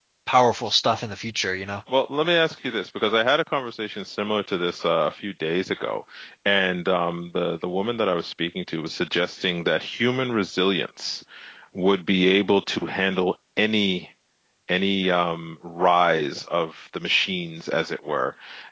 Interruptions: none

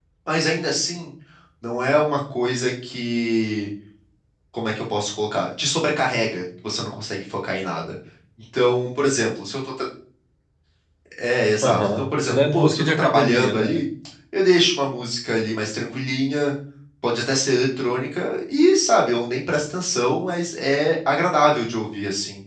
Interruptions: present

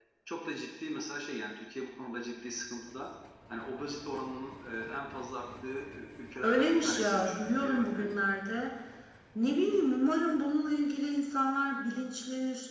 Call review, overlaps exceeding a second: present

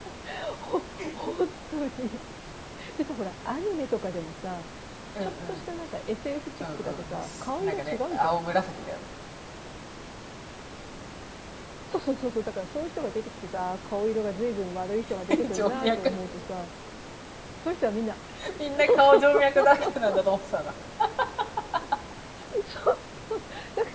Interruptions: present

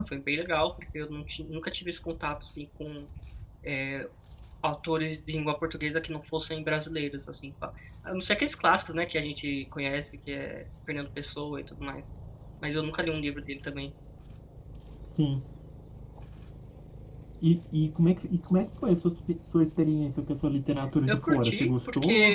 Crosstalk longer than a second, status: present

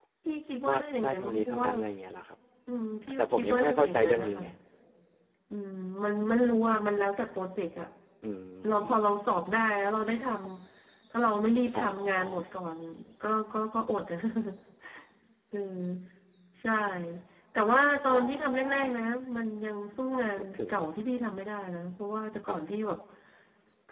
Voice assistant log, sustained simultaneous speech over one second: present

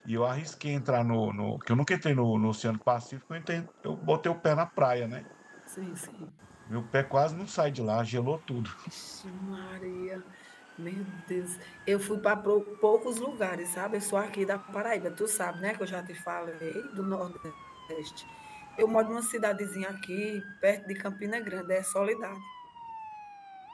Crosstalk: none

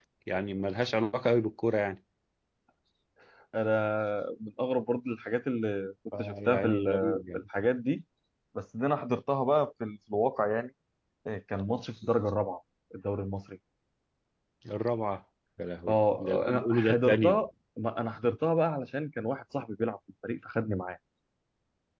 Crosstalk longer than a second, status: present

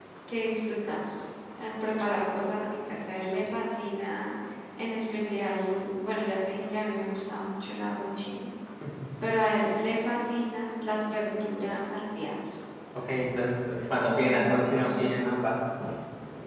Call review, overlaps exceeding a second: present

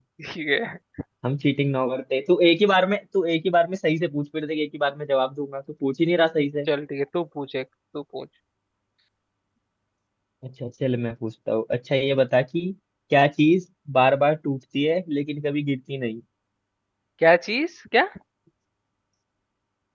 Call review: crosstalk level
none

